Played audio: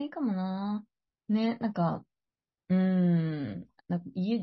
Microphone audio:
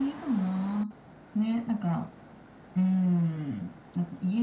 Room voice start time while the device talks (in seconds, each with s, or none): none